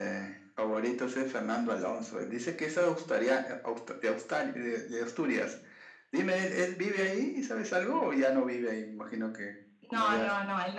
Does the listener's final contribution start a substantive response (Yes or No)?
Yes